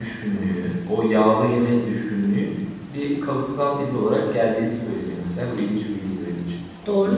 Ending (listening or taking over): taking over